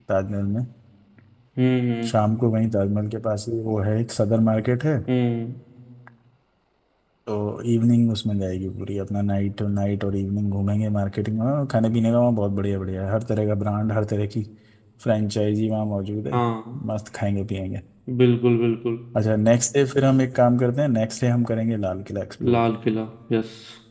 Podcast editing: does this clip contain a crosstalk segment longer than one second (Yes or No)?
No